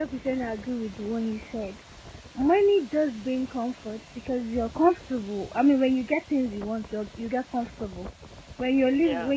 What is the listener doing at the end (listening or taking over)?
listening